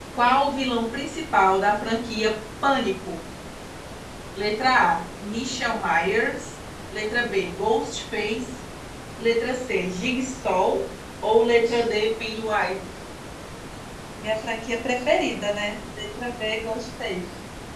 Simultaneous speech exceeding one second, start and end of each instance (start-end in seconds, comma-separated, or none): none